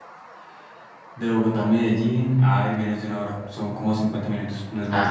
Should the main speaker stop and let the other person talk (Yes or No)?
Yes